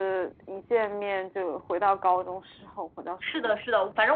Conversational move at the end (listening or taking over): taking over